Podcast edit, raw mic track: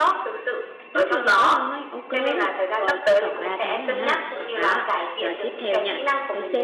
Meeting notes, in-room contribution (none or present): present